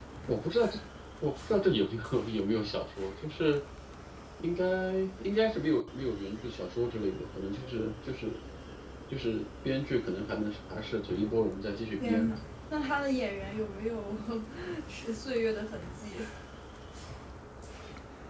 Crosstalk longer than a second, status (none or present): none